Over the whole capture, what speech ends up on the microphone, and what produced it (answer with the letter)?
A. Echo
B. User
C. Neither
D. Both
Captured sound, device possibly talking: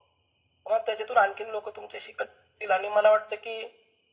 A